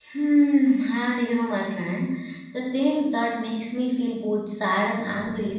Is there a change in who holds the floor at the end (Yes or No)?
No